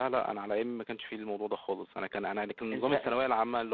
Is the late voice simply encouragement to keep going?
Yes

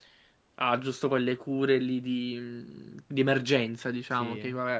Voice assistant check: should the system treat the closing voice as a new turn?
No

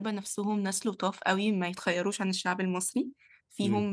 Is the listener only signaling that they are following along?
Yes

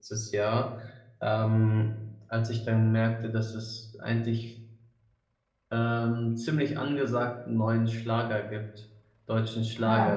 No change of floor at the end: Yes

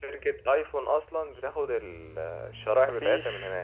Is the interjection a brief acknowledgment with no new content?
No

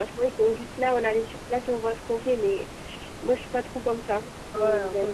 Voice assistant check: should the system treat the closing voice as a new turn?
Yes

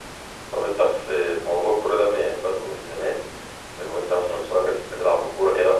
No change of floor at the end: Yes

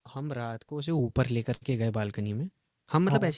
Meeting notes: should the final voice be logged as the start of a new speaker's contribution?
No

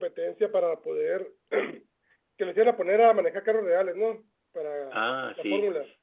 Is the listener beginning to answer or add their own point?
Yes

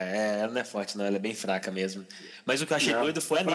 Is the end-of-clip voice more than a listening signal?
No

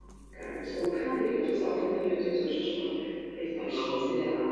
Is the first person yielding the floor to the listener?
Yes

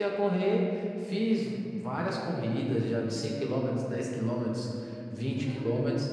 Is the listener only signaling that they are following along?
Yes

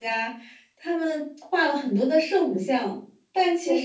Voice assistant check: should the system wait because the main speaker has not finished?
Yes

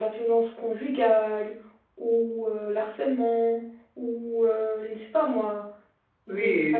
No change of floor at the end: No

